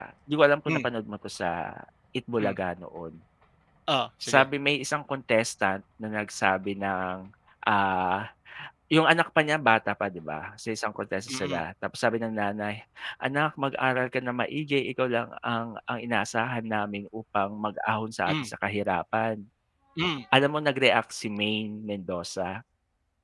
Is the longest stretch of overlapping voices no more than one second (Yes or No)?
Yes